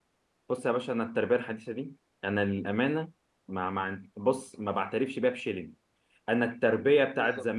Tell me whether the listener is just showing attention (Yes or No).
Yes